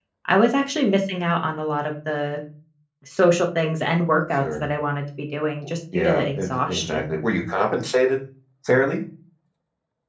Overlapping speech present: Yes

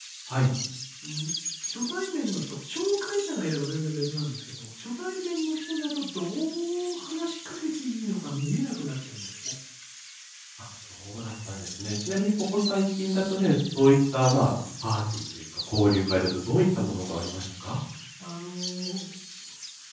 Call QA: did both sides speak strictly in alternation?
Yes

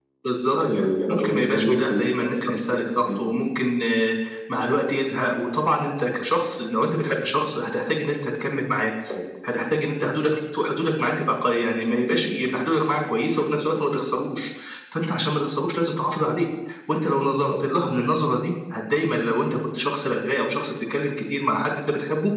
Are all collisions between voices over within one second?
No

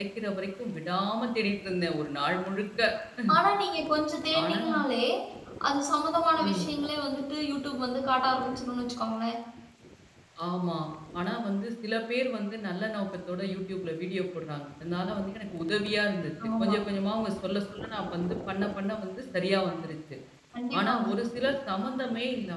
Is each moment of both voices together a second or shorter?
Yes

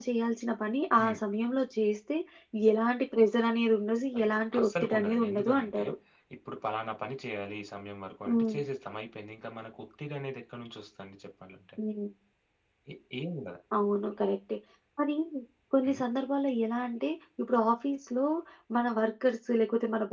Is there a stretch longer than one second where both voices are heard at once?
Yes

